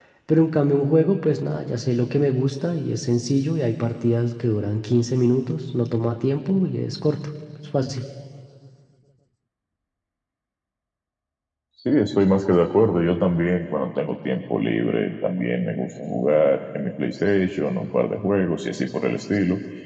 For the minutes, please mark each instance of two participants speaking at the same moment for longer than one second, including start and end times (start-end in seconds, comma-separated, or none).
none